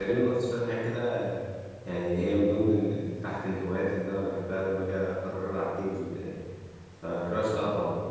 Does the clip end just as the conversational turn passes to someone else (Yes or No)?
No